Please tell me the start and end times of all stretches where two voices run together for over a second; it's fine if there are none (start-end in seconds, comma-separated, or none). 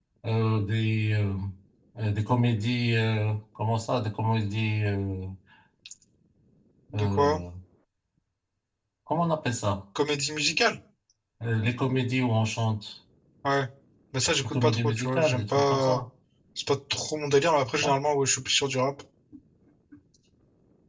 14.4-16.0